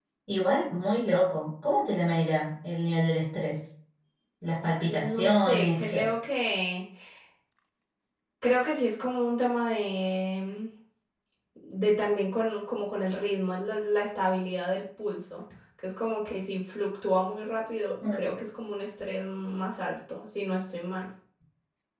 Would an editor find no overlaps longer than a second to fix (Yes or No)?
No